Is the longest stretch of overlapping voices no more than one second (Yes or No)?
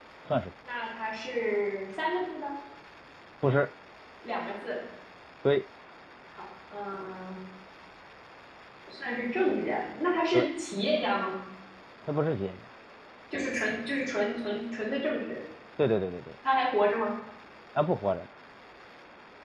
Yes